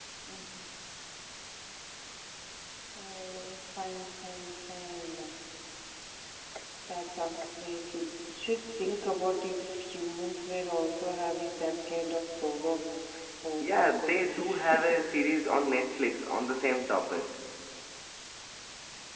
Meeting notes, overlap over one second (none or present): present